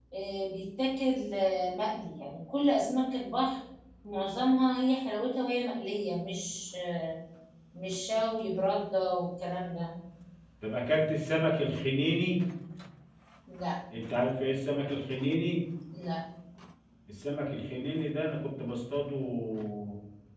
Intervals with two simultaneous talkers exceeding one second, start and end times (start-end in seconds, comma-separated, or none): none